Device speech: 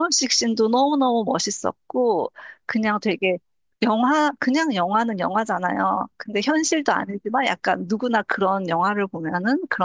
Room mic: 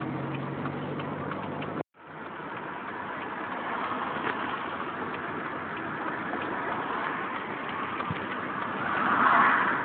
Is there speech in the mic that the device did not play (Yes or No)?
No